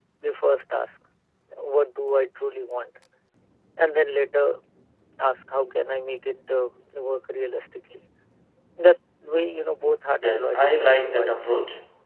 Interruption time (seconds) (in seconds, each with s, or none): 10.2 s